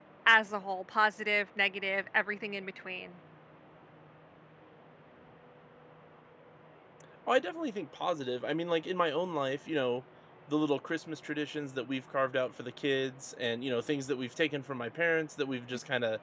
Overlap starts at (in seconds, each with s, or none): none